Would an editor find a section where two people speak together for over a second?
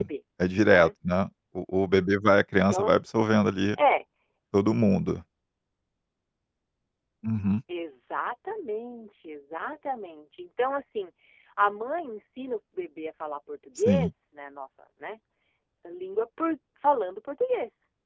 No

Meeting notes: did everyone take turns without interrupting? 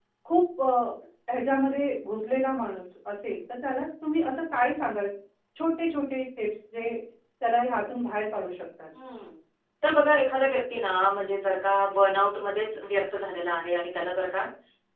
Yes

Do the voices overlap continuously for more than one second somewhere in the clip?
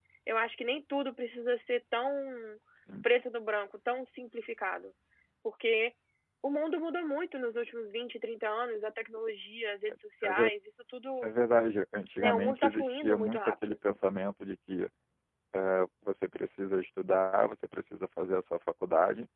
Yes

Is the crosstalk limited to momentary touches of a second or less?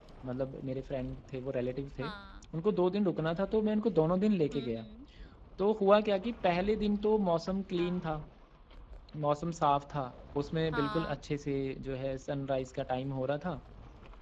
Yes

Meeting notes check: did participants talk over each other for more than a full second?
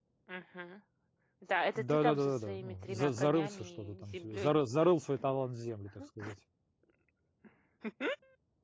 Yes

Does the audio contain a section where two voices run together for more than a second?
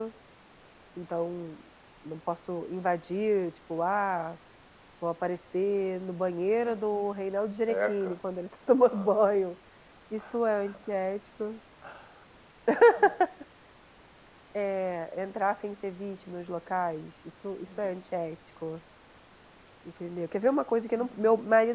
No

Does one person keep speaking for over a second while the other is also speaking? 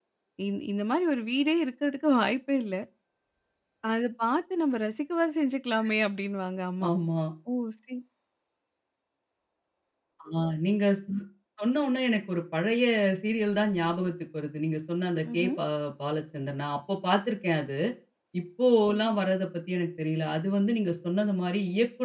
No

